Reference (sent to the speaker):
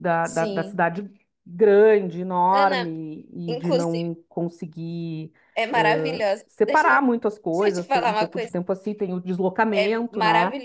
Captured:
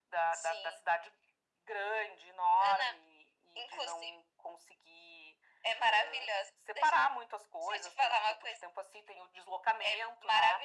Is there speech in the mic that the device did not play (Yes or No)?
No